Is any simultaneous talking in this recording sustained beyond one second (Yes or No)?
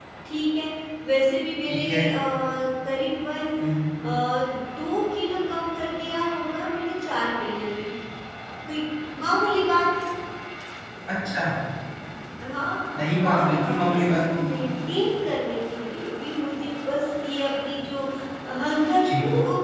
Yes